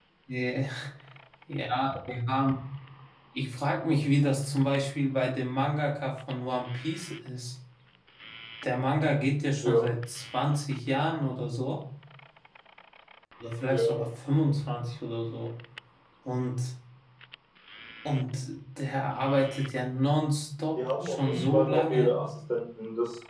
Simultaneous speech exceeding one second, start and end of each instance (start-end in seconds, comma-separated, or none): 20.8-22.1